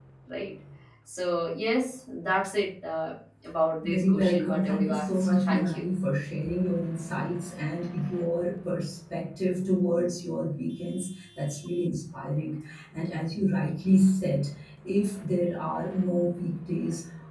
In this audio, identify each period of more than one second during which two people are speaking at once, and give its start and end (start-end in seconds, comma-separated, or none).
3.8-5.8